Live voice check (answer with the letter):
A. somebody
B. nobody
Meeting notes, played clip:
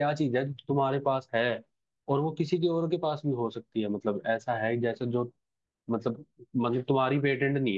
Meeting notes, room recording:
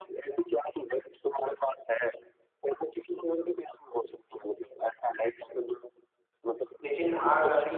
A